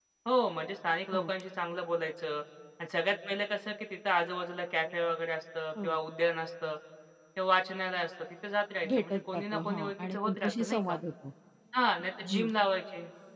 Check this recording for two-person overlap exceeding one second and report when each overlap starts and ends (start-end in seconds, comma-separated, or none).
8.9-10.9